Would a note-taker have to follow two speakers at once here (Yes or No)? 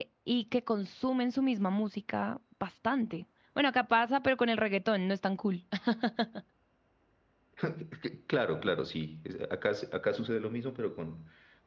No